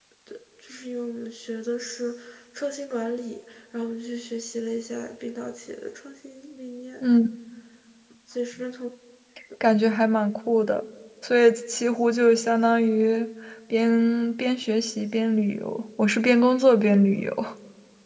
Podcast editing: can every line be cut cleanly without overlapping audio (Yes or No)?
Yes